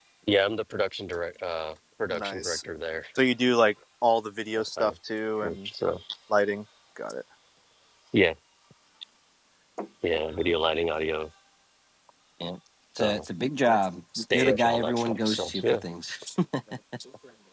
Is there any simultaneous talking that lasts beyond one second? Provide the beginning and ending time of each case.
14.3-15.8

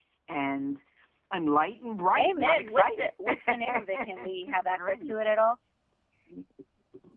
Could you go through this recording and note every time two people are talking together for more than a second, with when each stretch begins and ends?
2.1-5.1

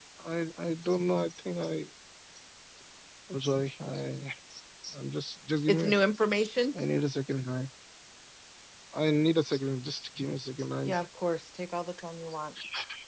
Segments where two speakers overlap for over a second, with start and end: none

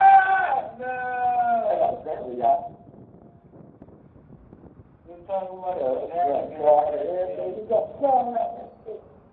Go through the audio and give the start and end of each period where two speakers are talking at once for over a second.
5.8-7.5

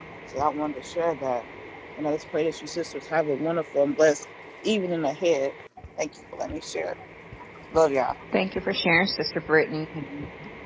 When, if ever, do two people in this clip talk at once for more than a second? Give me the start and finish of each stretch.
none

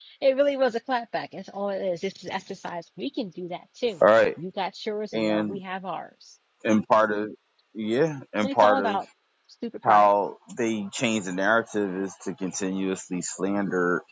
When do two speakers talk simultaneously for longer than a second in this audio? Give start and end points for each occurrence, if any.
none

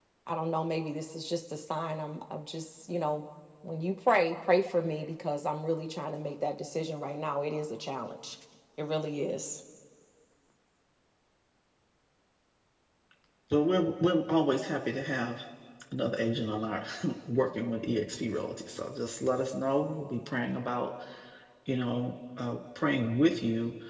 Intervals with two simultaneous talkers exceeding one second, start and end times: none

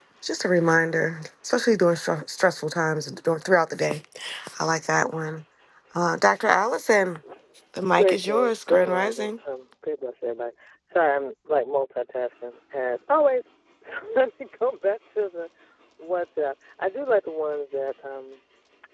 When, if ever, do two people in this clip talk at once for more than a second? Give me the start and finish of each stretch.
7.9-9.3

